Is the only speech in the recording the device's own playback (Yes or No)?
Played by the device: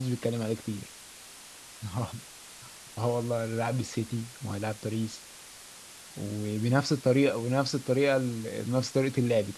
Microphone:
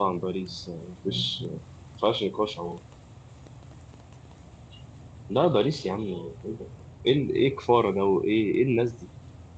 No